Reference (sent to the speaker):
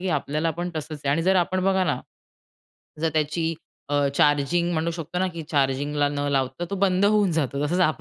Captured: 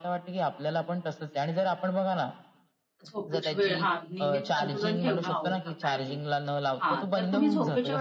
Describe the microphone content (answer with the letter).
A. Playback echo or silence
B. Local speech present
B